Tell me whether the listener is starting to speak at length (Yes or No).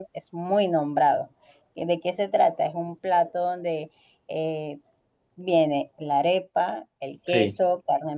No